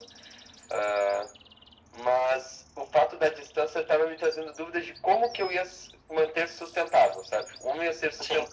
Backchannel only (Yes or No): Yes